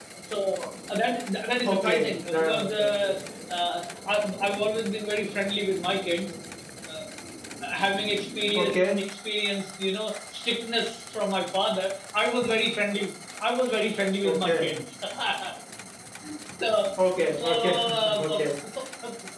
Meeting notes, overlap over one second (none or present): present